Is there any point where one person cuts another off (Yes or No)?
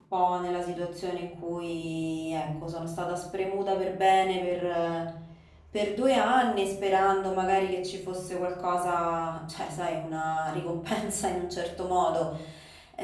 No